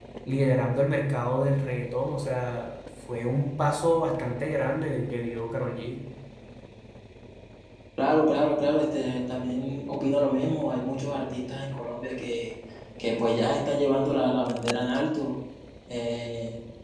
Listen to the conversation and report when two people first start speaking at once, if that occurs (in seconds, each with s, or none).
none